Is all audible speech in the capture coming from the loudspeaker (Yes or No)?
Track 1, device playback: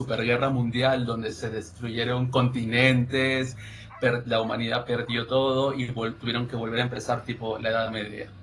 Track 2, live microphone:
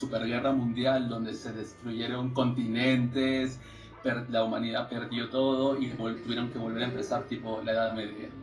No